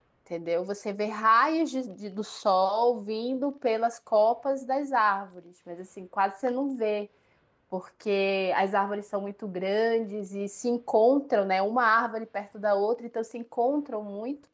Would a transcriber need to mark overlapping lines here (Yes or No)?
No